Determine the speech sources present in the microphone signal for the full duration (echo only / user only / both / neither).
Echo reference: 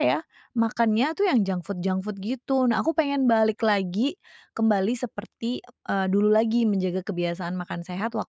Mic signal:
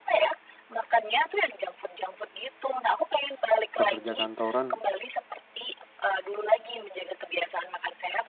both